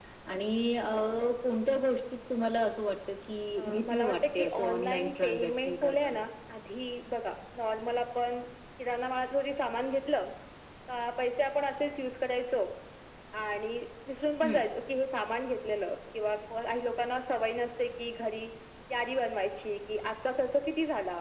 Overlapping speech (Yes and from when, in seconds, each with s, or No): Yes, from 3.6 s